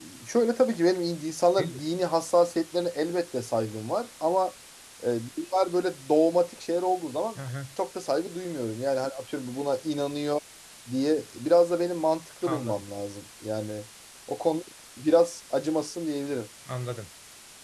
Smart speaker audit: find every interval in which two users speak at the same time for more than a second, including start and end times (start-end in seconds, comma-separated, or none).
none